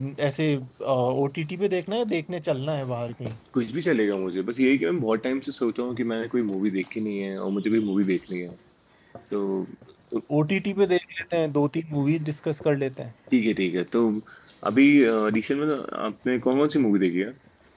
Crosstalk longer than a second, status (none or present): none